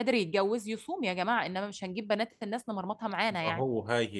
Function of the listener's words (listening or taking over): taking over